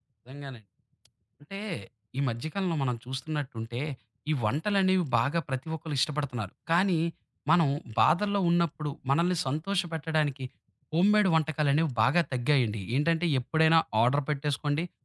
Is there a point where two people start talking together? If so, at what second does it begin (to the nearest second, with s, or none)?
none